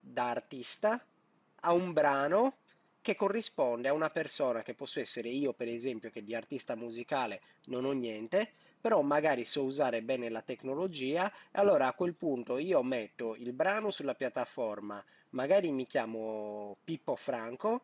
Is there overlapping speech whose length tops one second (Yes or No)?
No